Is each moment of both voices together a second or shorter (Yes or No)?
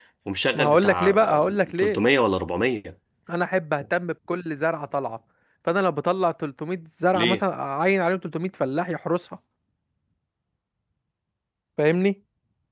No